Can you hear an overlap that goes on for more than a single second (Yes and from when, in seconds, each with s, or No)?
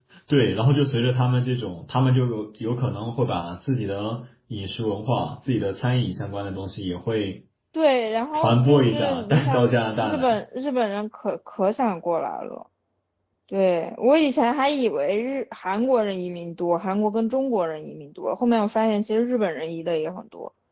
Yes, from 8.3 s